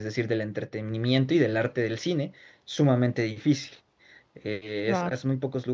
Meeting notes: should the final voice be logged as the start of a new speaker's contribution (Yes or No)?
No